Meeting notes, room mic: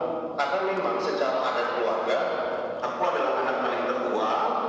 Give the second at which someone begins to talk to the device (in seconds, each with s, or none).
none